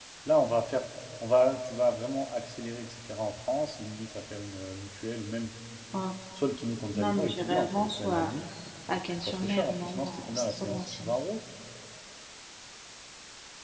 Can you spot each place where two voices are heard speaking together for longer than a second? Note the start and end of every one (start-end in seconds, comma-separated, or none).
6.9-8.3, 9.1-11.1